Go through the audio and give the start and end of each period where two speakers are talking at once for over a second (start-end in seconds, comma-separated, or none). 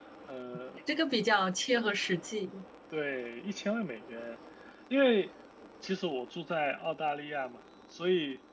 none